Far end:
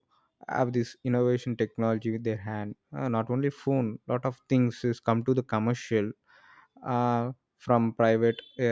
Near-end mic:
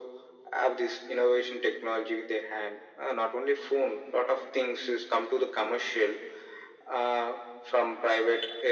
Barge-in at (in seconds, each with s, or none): none